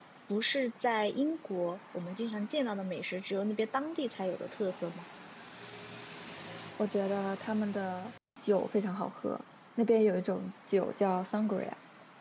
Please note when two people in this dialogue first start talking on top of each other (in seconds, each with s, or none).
none